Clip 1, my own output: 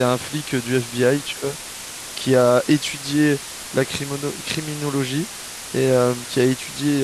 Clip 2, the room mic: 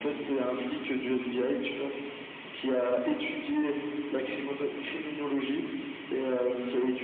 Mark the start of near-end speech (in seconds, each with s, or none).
none